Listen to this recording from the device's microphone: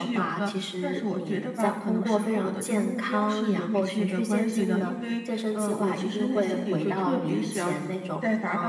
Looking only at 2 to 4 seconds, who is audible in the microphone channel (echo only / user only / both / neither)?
echo only